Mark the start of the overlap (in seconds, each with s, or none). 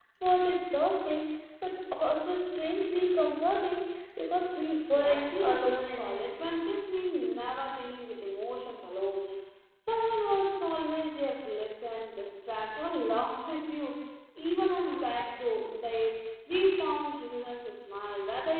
4.9 s